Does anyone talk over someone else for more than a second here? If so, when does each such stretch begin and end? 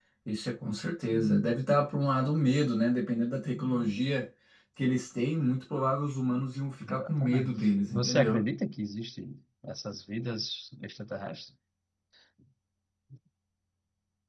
6.8-8.4

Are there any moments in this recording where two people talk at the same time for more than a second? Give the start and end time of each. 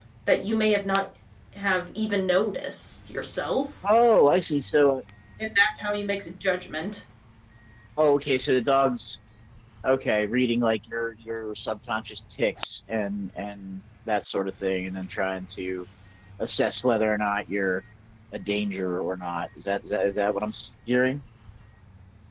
none

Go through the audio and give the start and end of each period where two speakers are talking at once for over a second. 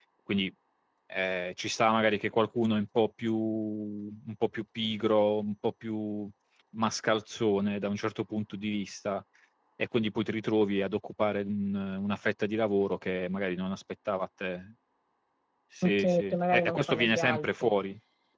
15.8-17.7

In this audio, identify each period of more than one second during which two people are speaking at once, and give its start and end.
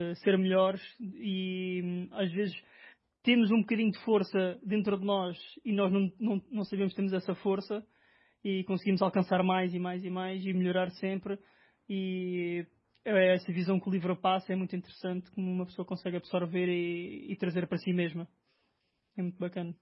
none

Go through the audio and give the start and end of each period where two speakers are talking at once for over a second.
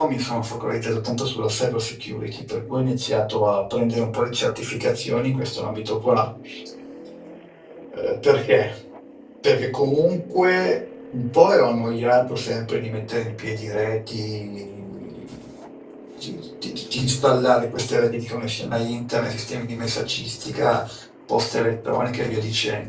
none

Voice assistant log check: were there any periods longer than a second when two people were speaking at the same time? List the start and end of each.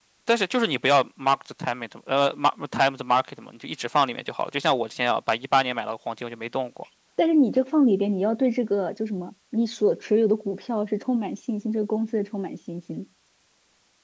none

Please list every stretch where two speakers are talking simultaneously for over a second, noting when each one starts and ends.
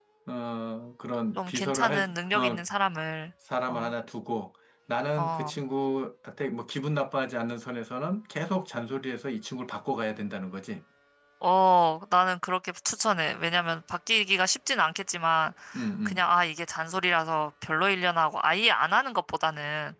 1.4-2.6

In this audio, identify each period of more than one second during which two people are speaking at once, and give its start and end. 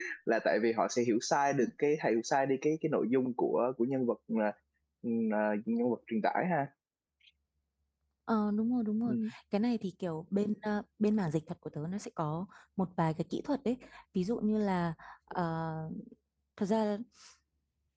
none

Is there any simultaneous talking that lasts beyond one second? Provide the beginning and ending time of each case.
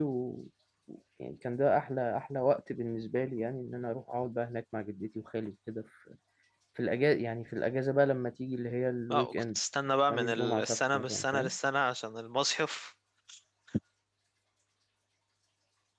10.1-11.5

